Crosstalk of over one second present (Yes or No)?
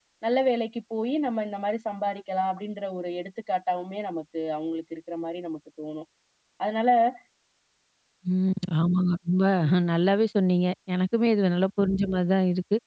No